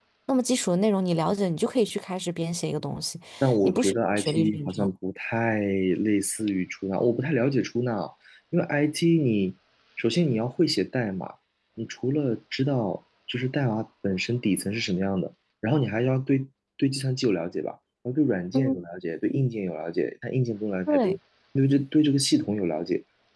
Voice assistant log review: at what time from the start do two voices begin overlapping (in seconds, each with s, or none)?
3.6 s